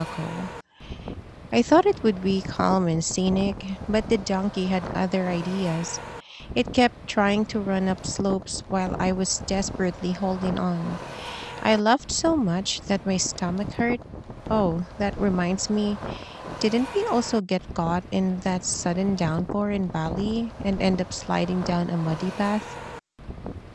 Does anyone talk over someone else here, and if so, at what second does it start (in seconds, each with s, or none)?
none